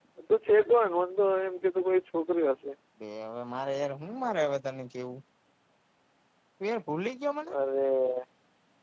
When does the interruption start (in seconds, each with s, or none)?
none